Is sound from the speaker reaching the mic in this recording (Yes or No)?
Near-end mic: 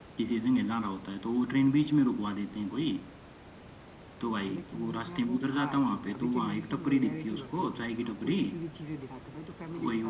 Yes